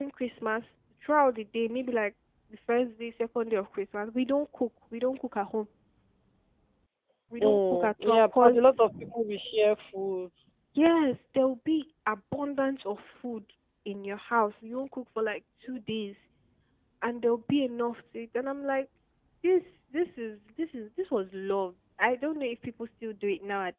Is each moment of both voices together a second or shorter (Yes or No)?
No